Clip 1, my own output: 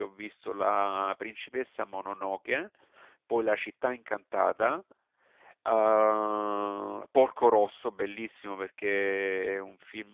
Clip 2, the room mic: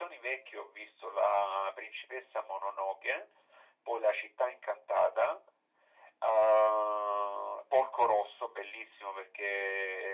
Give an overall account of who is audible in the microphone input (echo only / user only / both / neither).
echo only